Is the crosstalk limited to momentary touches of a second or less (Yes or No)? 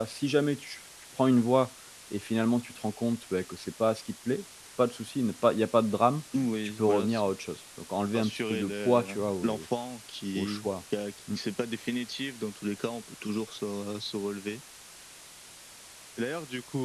No